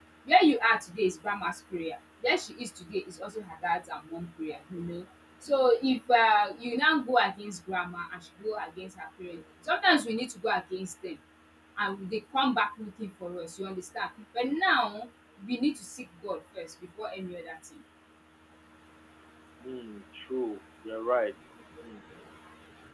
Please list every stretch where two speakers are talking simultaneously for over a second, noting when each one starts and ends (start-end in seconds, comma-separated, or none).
none